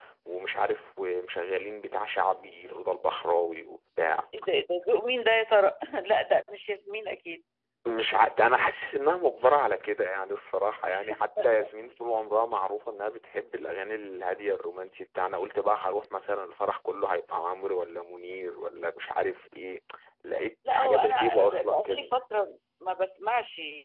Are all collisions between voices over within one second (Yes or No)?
No